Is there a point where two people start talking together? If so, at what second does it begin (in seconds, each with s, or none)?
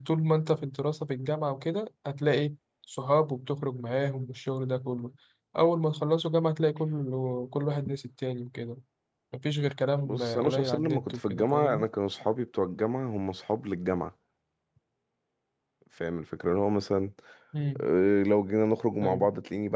10.1 s